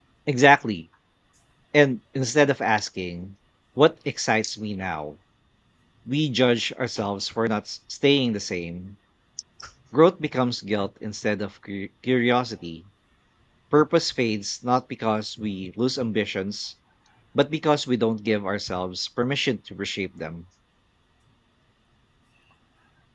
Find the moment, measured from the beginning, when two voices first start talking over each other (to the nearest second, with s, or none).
none